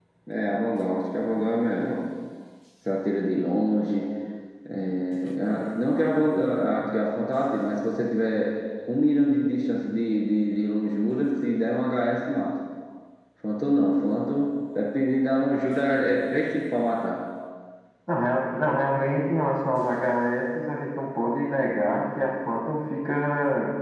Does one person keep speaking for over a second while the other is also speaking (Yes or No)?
No